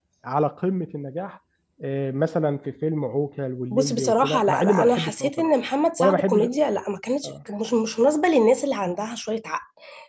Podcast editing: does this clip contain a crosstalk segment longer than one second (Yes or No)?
Yes